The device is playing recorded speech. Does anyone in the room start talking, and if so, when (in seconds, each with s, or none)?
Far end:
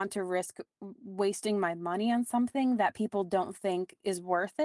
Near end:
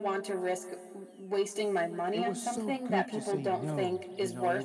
2.1 s